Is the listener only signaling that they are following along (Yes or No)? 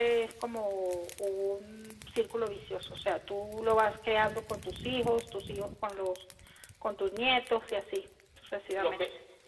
No